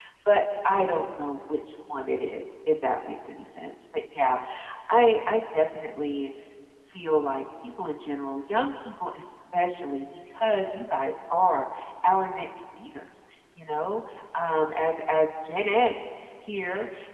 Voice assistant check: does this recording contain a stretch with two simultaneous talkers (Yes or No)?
No